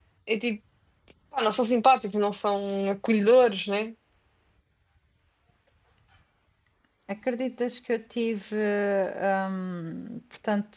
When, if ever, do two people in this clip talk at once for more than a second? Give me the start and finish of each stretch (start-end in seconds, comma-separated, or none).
none